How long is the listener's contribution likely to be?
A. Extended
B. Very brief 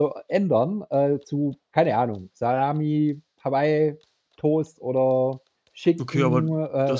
A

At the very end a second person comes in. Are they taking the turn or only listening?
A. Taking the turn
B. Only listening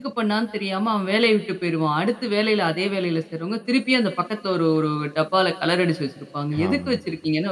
B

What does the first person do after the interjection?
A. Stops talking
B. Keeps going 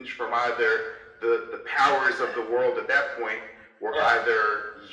B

